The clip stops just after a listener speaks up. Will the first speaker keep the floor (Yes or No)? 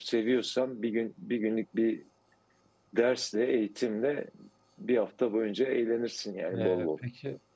No